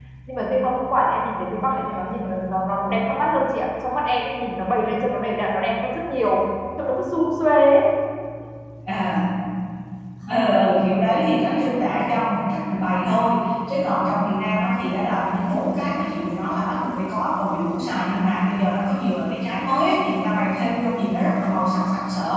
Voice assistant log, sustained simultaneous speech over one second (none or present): none